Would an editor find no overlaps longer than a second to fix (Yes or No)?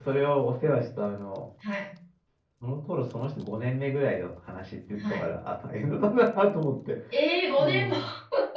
Yes